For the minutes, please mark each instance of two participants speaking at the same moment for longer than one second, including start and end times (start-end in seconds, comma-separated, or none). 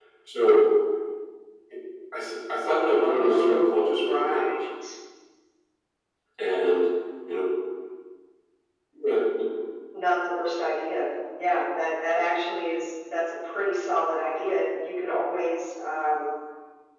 2.8-4.5